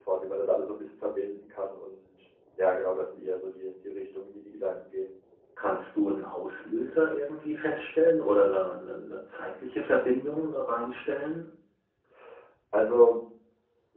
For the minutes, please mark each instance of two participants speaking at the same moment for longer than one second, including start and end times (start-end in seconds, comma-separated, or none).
none